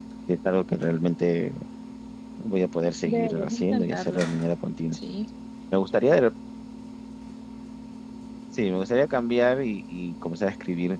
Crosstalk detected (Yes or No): Yes